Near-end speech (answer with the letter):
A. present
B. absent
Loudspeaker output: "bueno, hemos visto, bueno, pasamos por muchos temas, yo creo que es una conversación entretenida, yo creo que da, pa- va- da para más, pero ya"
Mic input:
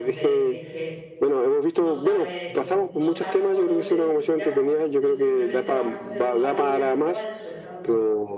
A